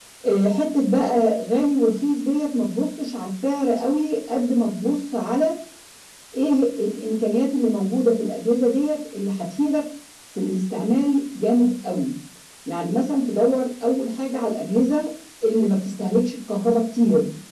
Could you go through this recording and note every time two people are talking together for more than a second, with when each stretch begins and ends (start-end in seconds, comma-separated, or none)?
none